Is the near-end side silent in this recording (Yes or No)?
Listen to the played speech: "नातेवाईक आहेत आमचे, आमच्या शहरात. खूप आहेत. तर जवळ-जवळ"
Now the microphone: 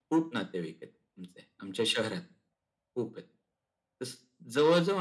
Yes